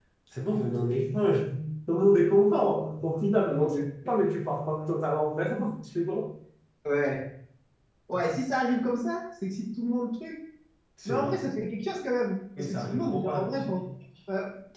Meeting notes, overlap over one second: present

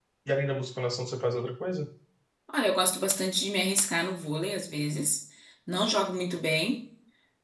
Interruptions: none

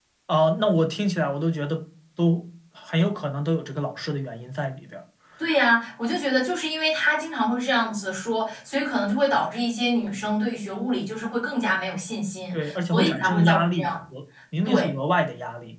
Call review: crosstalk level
present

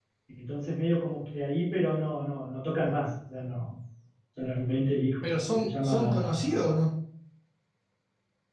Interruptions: present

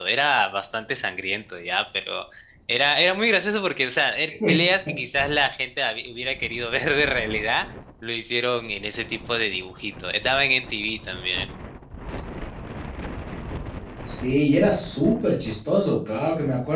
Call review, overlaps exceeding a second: none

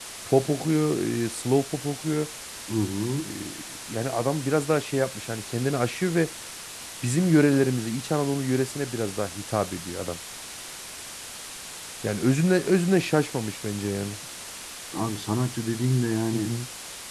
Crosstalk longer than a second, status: none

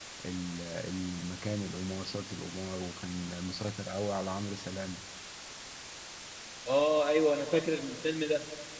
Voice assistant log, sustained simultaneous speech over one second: none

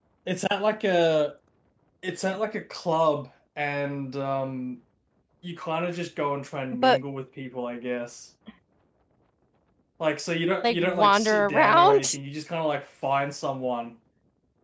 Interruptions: present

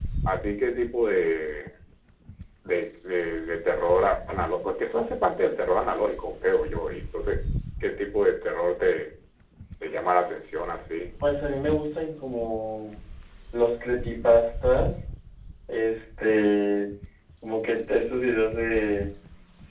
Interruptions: none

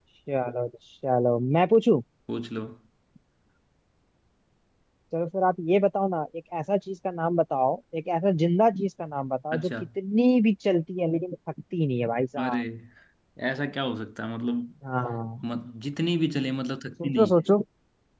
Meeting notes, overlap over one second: none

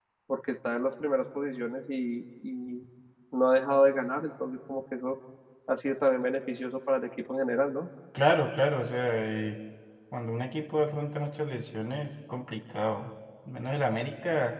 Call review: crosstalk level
none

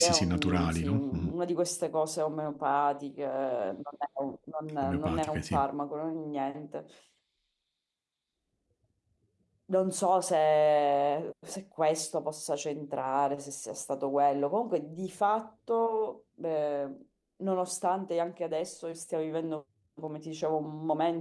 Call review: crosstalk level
present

